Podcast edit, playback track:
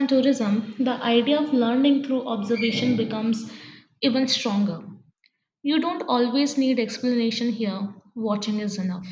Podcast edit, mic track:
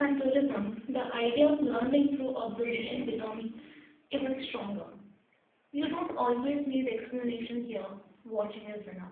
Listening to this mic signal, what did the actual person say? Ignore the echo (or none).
none